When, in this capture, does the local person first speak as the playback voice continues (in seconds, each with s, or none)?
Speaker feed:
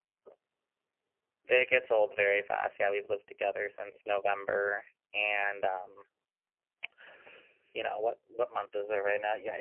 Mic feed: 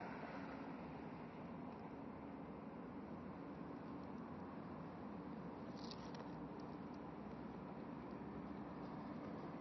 none